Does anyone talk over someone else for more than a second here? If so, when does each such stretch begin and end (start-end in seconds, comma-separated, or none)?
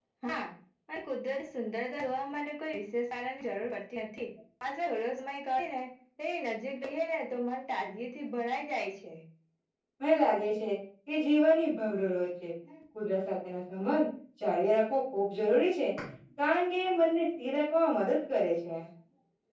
none